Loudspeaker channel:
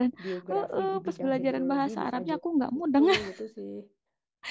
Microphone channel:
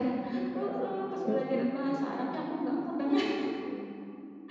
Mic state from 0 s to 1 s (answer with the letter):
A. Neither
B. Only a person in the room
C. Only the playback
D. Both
C